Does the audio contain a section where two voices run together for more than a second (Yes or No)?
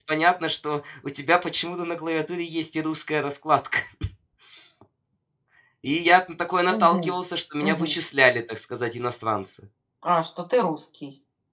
No